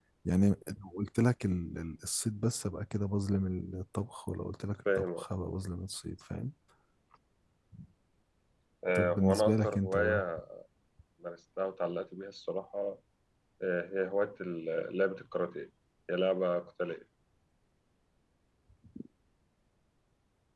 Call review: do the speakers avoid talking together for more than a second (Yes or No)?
No